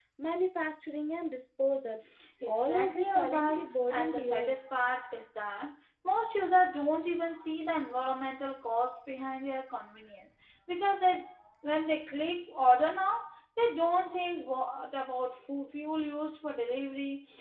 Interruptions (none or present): present